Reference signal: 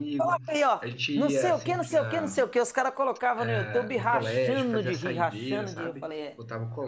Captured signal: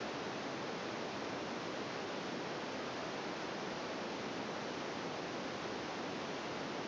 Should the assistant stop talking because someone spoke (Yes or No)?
No